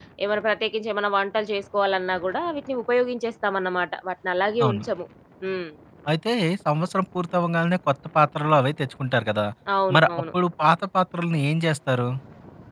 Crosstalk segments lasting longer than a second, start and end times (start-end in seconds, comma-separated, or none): none